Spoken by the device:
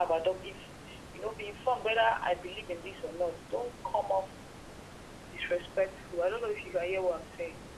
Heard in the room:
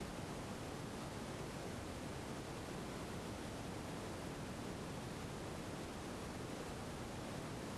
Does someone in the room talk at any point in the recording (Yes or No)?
No